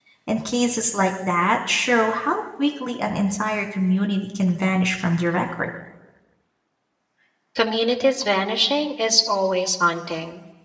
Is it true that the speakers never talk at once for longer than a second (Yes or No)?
Yes